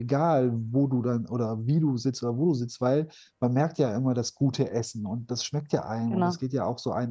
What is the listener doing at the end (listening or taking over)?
listening